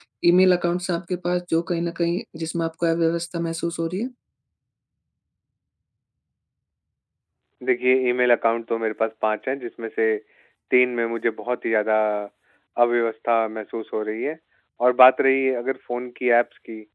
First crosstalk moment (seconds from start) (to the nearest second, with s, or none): none